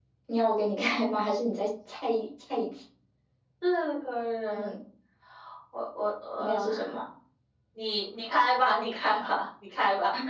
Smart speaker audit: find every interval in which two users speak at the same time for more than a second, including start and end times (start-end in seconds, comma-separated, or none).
none